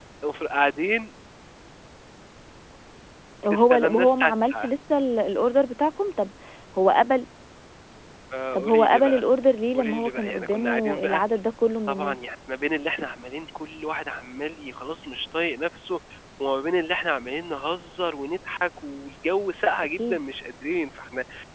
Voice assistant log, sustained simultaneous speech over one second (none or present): present